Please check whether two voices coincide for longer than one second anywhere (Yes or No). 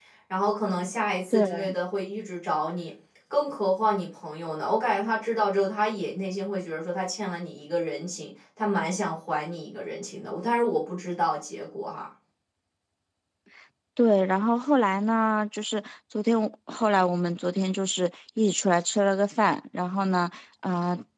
No